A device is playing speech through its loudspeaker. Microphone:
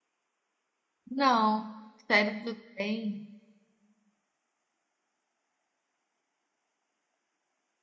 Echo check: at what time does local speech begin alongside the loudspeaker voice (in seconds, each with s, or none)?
1.1 s